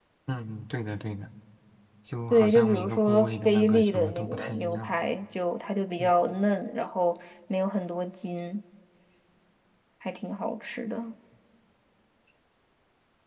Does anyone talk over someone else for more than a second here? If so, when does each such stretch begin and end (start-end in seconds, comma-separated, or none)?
2.3-4.9